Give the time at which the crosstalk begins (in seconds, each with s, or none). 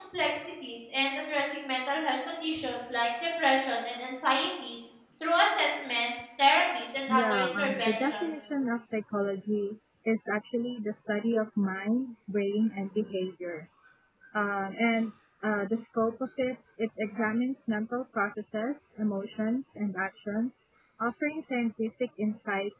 7.1 s